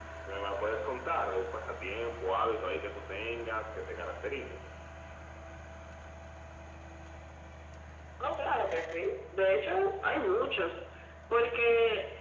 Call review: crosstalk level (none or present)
none